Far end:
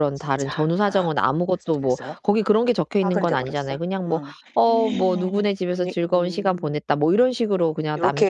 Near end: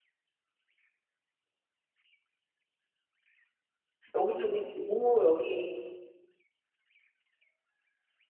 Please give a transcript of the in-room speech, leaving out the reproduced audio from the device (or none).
여기저기 진짜 너무 여기